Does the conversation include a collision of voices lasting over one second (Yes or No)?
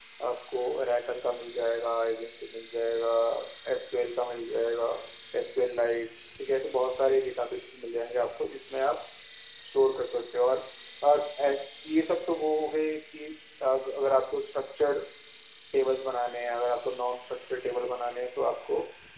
No